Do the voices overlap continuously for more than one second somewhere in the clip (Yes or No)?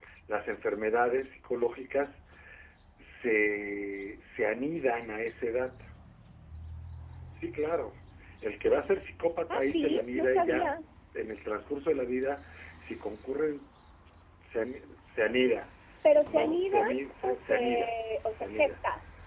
Yes